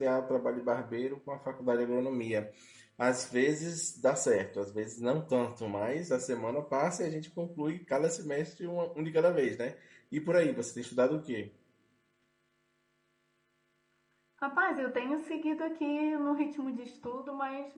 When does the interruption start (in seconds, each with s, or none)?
none